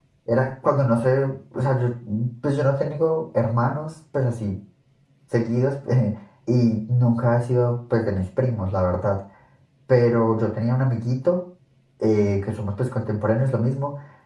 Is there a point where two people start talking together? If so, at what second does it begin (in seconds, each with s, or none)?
none